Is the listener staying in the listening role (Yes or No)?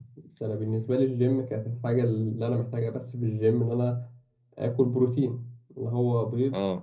Yes